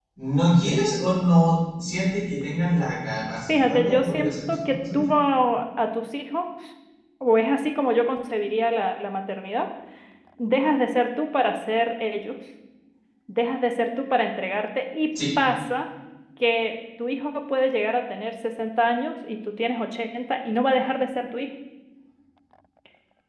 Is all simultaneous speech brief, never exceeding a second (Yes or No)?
No